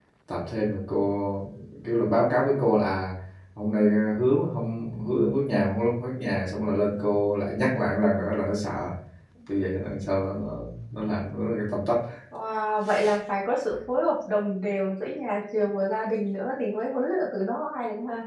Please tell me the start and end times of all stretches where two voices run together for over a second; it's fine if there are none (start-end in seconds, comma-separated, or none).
none